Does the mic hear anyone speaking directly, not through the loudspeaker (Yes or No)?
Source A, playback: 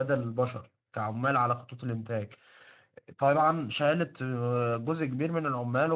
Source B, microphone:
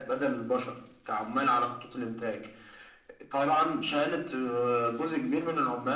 No